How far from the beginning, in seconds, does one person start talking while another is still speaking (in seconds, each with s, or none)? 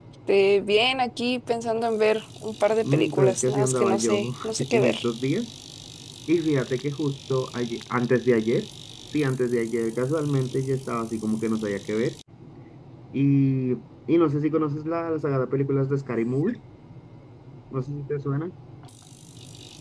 2.8 s